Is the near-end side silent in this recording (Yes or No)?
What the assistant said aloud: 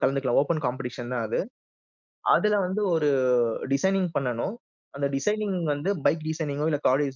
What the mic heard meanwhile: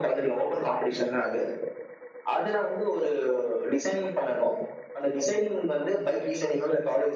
Yes